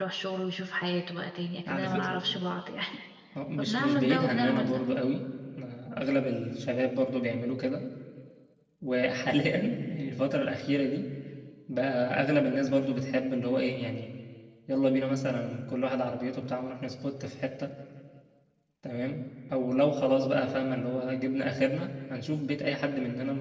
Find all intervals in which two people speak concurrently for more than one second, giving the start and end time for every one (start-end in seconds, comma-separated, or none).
3.6-4.8